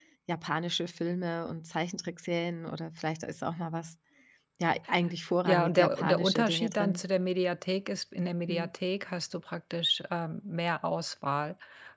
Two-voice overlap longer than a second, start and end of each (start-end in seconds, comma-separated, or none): 5.5-7.0